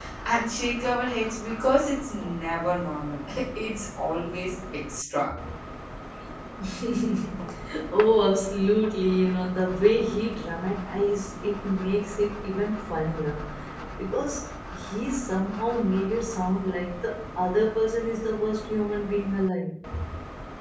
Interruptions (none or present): none